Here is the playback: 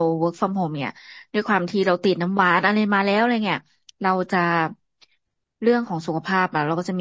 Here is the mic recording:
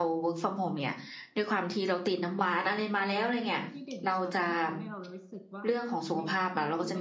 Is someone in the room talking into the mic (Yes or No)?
Yes